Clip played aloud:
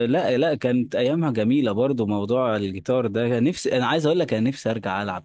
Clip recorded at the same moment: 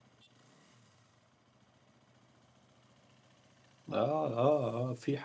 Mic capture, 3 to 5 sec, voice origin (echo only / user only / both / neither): user only